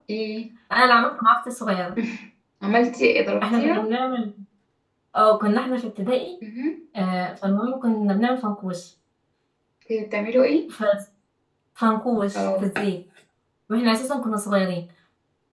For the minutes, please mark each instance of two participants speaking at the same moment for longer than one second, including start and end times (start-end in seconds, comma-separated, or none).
none